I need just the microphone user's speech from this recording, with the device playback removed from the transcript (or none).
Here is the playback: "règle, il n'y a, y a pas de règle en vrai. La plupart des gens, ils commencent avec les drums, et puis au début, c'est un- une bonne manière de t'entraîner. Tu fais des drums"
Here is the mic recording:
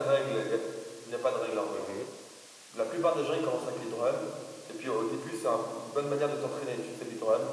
Mhm.